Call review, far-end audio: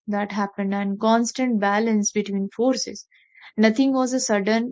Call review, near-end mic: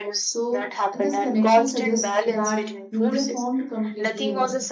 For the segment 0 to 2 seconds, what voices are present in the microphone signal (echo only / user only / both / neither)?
both